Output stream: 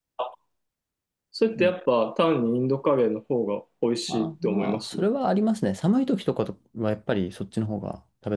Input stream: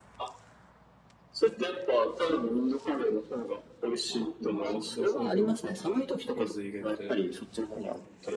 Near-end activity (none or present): present